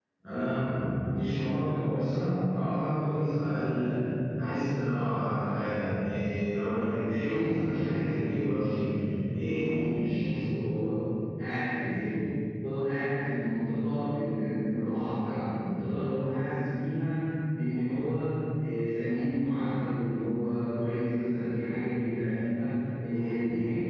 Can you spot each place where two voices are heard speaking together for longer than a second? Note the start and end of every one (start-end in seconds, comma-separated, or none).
7.2-8.8